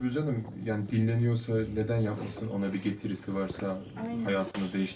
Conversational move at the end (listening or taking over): listening